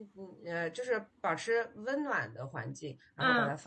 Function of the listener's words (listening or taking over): taking over